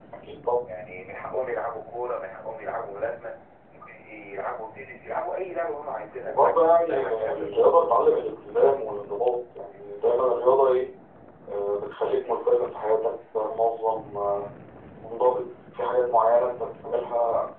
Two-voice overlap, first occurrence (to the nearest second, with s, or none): 6 s